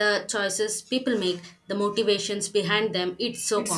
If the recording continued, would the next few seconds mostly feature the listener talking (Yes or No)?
Yes